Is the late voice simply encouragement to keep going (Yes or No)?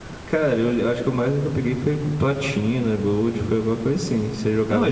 No